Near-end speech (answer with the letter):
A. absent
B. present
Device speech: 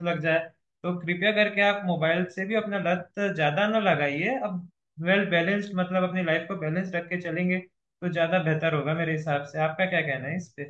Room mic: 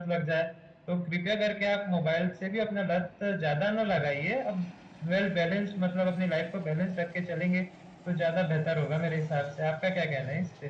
A